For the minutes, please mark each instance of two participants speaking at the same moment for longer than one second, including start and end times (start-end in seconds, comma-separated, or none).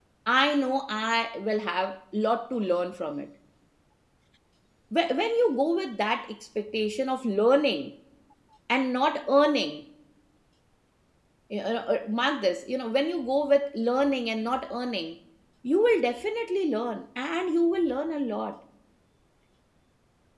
none